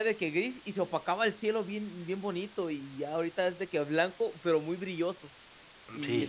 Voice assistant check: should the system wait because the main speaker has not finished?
No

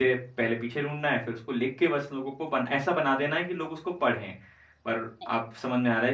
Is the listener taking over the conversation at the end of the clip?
No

